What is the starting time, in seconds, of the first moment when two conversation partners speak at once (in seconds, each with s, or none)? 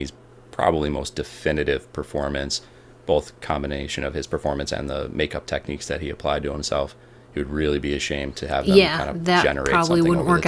8.6 s